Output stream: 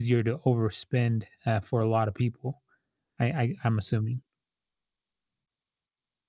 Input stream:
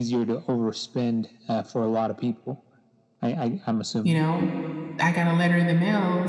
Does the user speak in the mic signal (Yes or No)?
Yes